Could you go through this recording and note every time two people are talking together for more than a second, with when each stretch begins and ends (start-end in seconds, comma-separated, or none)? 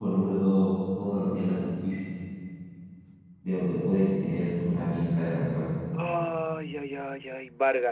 none